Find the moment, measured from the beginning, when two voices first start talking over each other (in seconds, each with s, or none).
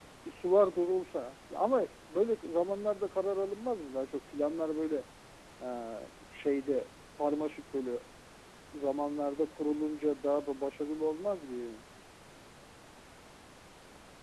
none